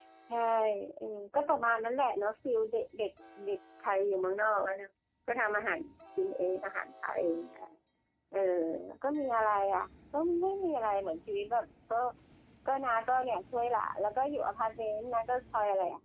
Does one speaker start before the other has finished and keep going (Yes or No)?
No